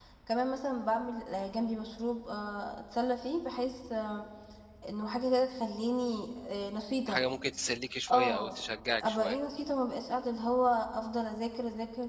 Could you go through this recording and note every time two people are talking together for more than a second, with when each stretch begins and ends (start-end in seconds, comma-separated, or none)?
none